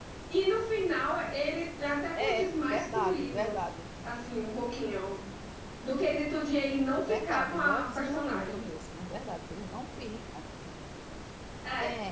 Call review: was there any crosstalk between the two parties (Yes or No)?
Yes